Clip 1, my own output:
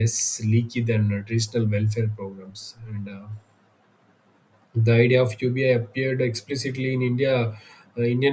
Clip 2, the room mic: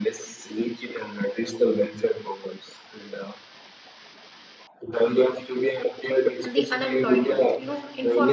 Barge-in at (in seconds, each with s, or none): 6.4 s